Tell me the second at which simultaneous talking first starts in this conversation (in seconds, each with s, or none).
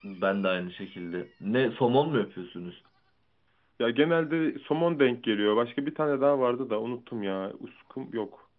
none